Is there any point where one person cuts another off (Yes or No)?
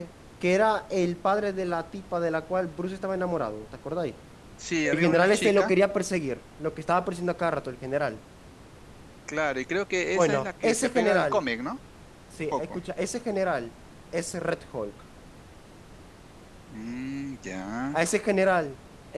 Yes